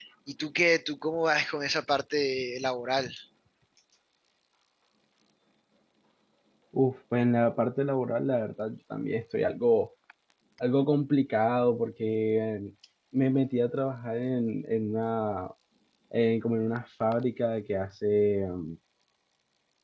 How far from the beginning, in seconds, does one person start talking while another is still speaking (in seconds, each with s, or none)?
none